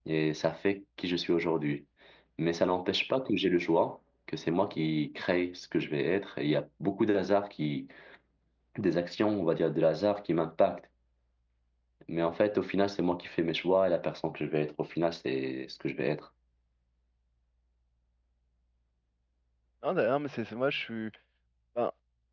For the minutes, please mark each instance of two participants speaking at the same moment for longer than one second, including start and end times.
none

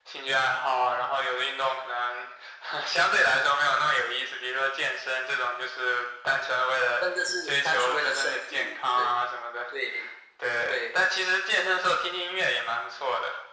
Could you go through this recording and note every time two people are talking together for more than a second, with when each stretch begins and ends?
7.4-9.1

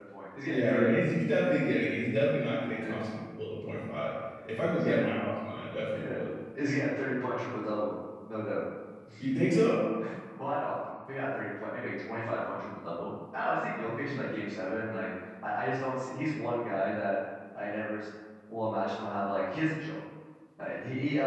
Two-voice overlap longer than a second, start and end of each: none

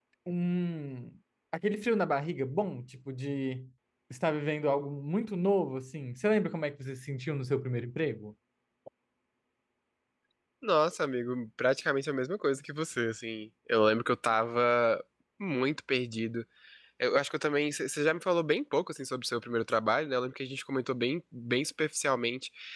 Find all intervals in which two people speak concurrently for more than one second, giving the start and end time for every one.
none

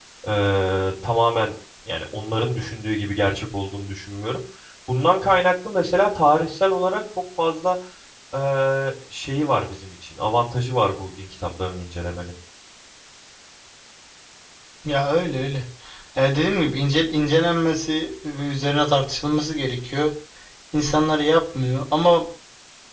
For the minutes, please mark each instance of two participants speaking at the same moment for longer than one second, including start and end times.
none

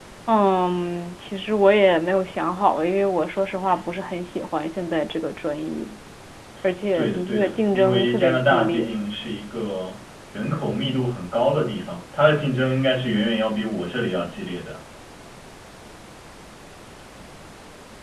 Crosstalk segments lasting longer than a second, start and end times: 6.9-8.9

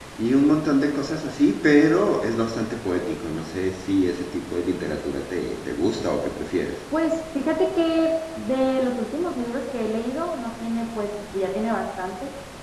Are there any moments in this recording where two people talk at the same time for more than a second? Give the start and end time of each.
none

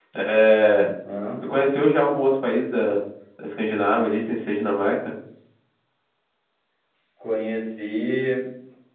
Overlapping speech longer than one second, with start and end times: none

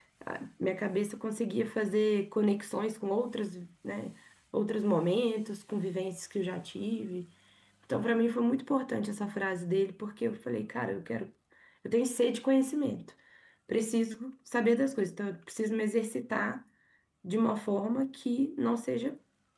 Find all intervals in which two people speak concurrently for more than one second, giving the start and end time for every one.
none

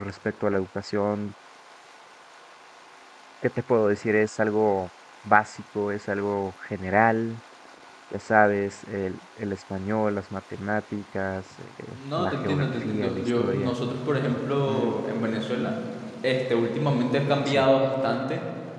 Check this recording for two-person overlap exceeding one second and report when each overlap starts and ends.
12.0-13.7

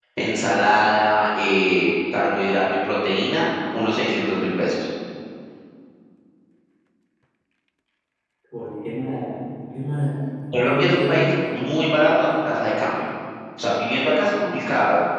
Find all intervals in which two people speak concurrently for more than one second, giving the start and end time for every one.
10.6-13.0

